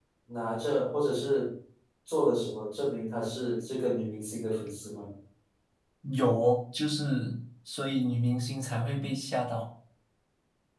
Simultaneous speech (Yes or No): No